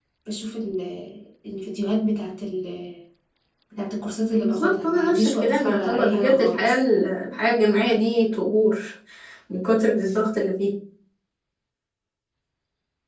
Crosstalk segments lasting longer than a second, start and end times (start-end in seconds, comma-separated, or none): 4.3-6.7